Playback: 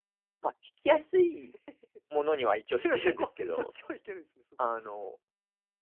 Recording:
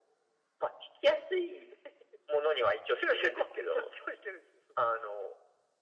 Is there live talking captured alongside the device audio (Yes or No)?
No